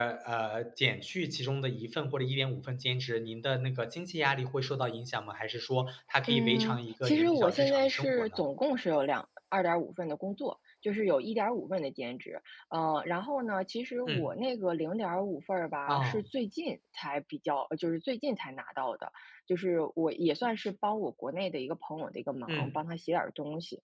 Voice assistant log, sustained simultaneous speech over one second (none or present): present